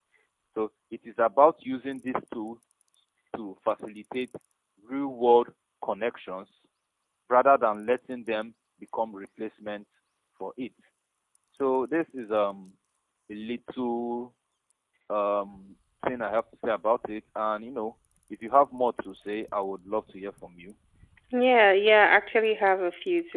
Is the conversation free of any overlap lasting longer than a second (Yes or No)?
Yes